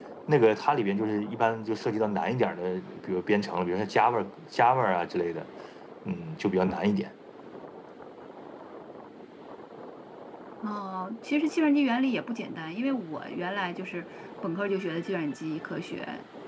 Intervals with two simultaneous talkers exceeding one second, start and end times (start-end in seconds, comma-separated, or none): none